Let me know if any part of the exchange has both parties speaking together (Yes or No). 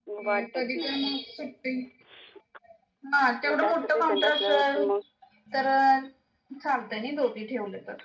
Yes